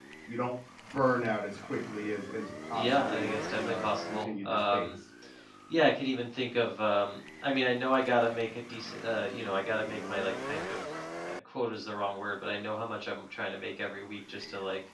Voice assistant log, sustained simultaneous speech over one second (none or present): present